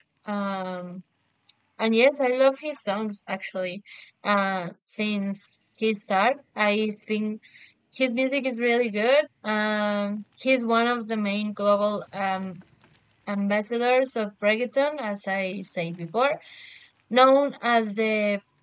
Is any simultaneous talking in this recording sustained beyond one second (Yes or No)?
No